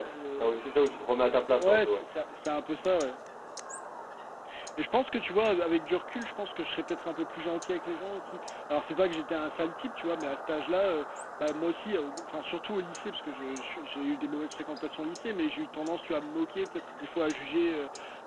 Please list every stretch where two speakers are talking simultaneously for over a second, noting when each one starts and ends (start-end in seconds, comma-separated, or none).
none